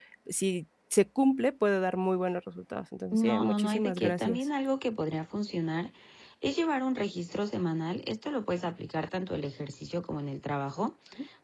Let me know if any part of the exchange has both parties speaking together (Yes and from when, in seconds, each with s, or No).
Yes, from 3.1 s